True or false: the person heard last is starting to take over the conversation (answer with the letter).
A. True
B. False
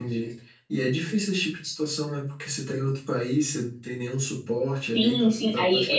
A